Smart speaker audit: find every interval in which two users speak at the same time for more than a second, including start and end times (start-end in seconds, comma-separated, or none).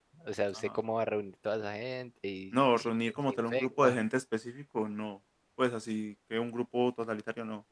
2.5-4.0